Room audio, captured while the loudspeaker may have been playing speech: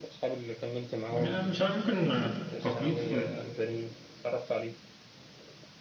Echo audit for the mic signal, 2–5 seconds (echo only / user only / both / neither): both